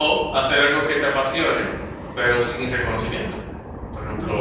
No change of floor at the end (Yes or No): No